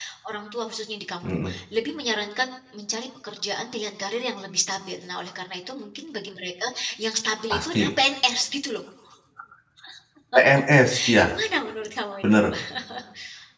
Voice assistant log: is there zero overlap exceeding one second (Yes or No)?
Yes